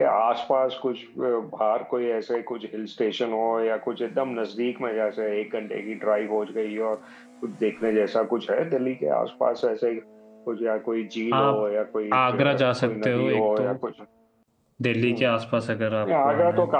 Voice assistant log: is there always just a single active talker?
No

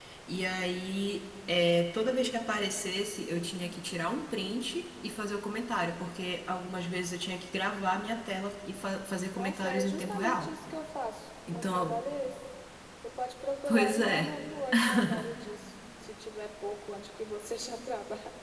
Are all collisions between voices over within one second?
No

